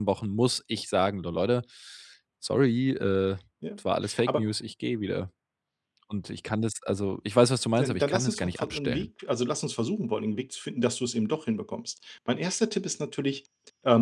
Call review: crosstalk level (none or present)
present